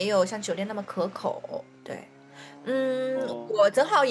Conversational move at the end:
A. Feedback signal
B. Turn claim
A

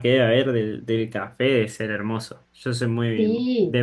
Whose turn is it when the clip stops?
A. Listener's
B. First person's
A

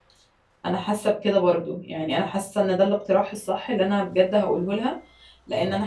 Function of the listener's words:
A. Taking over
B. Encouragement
B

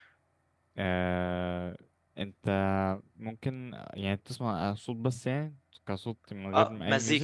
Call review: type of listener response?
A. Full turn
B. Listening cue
A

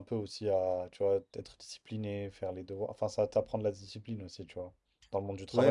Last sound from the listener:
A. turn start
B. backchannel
A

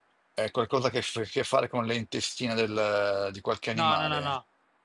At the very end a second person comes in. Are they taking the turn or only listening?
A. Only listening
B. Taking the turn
B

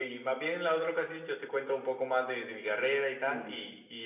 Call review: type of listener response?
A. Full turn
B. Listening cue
A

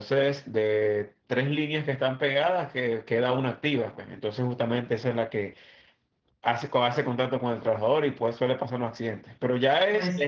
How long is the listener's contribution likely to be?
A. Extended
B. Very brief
B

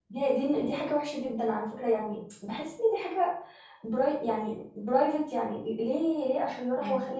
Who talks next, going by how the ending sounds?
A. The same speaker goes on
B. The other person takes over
A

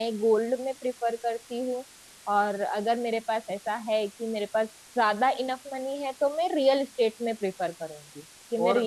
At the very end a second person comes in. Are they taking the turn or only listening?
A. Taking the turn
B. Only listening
A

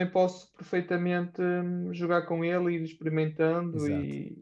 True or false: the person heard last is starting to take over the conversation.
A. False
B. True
B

